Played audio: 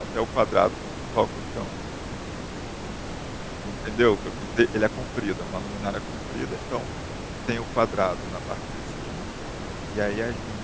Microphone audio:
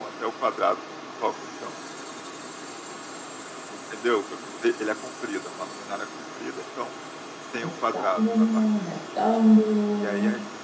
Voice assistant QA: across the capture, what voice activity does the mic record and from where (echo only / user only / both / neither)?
both